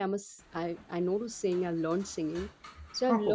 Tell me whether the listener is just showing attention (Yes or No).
Yes